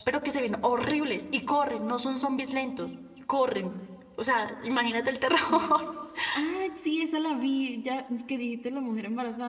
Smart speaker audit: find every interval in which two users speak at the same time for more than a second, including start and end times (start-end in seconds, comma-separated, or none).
none